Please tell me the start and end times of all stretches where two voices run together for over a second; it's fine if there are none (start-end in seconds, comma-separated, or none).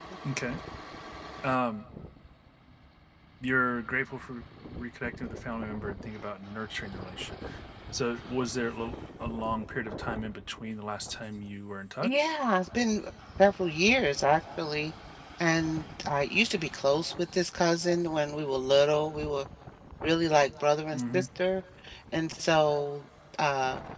none